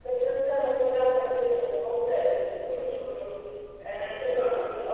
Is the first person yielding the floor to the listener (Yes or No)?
Yes